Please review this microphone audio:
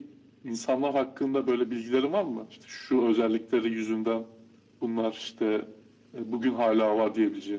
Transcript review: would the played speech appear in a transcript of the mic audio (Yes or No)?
Yes